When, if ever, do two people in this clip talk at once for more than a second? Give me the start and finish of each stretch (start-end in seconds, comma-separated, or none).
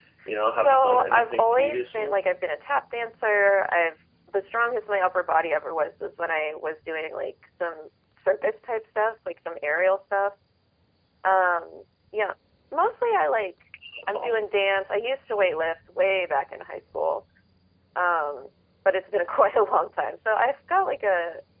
0.6-2.1